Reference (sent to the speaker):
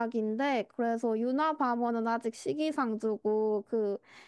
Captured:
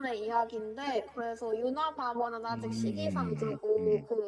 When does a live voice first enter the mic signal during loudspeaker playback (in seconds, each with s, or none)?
2.5 s